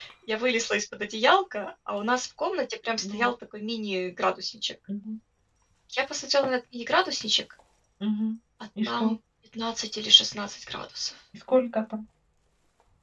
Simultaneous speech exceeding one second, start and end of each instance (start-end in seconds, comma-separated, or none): none